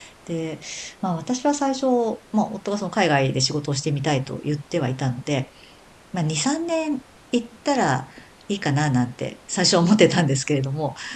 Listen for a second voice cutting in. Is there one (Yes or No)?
No